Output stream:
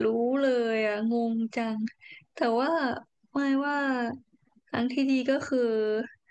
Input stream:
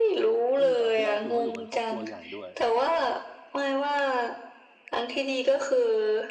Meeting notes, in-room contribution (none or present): present